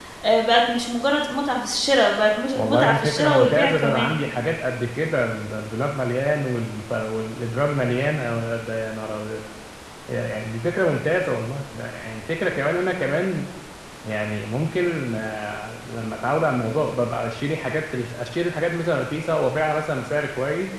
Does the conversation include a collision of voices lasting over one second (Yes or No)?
Yes